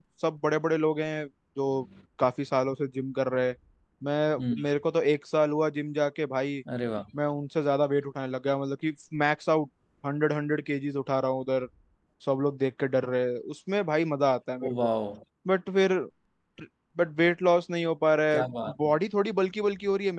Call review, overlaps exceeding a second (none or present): none